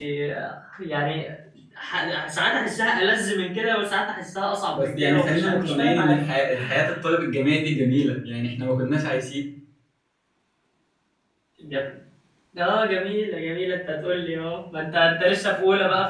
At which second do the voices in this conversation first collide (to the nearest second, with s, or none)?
5 s